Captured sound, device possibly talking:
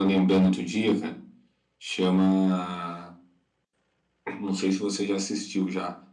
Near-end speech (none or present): none